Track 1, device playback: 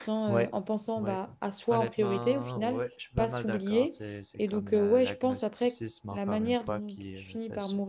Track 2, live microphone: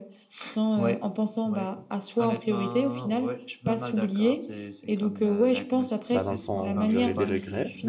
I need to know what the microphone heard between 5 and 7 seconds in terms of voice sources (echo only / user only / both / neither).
both